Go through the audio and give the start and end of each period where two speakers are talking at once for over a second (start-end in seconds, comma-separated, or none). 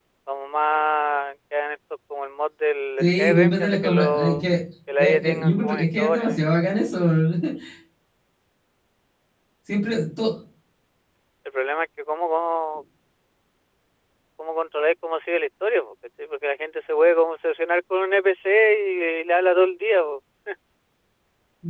3.0-4.5, 5.0-6.4